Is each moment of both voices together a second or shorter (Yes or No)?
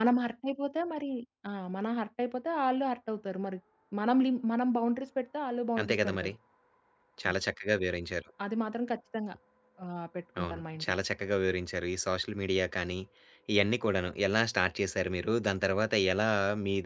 Yes